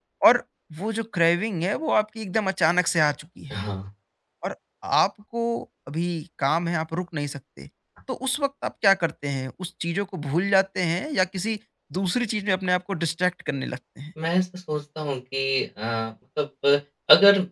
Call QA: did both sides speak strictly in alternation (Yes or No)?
Yes